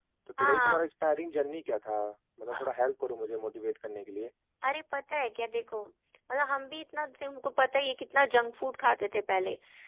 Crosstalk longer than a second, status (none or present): none